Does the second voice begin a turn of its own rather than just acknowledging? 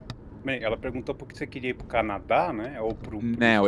Yes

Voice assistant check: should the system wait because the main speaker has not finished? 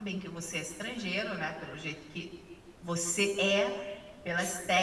Yes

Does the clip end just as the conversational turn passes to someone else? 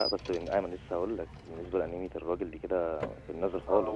Yes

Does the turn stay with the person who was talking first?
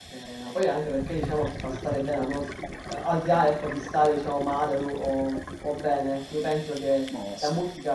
Yes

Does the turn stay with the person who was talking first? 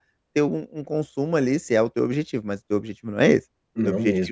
Yes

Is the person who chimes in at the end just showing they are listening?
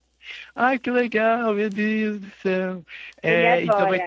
Yes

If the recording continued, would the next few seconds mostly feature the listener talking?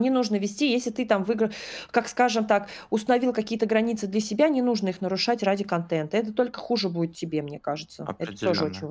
Yes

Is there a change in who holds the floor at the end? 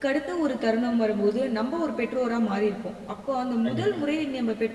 No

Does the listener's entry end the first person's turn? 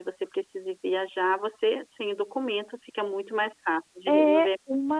Yes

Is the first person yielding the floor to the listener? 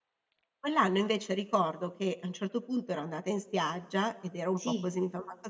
No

